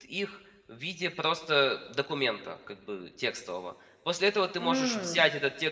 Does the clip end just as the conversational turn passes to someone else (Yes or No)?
No